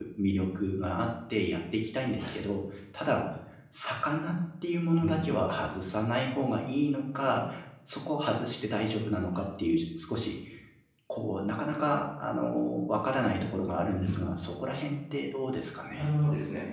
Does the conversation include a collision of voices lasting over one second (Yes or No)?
No